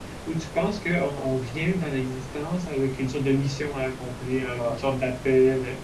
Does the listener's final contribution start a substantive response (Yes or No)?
No